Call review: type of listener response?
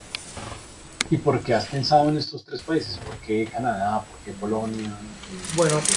taking over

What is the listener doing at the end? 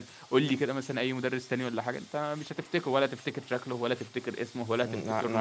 taking over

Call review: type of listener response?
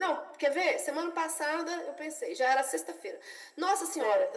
listening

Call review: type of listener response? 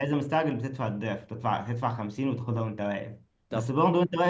listening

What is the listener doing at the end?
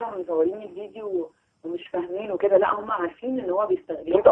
taking over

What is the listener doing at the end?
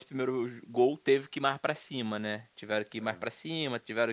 listening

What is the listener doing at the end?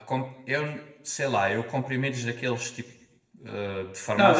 taking over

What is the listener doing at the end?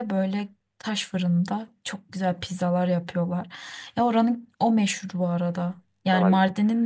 listening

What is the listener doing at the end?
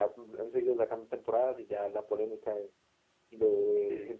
listening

